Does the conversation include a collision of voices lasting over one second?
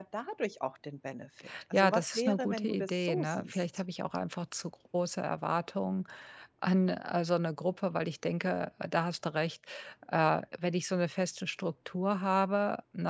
Yes, from 1.7 s

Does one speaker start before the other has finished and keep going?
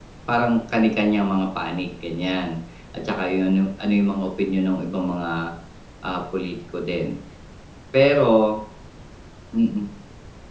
No

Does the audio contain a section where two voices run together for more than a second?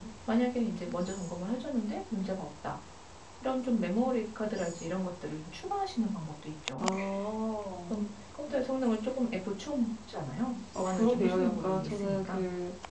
Yes, from 10.8 s

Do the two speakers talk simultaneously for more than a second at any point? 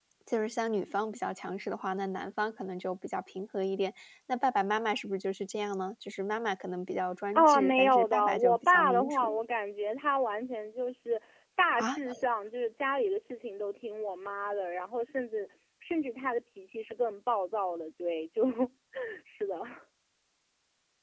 Yes, from 7.4 s

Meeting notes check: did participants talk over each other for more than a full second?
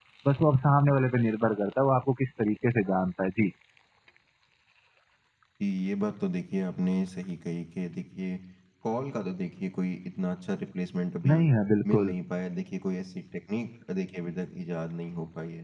No

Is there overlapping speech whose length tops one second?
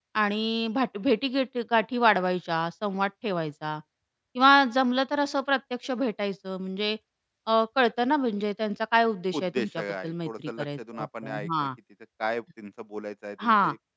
Yes, from 9.4 s

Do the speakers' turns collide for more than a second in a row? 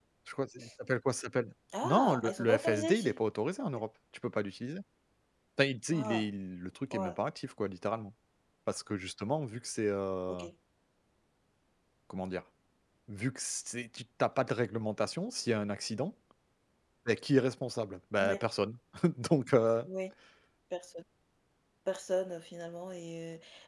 Yes, from 1.8 s

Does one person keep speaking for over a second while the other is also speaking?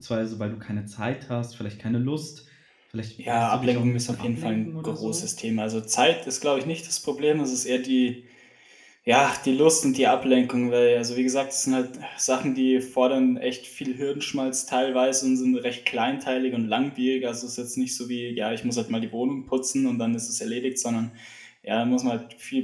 Yes, from 3.3 s

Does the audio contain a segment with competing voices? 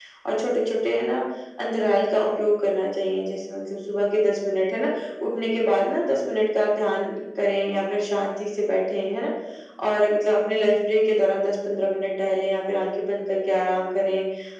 No

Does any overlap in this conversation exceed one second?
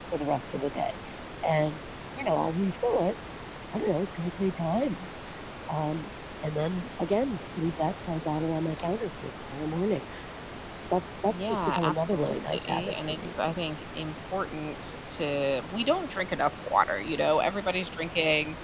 Yes, from 11.3 s

